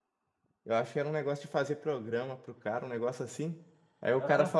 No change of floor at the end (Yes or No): Yes